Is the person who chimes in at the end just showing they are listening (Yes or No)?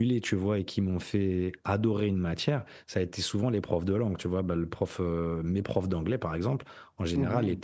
Yes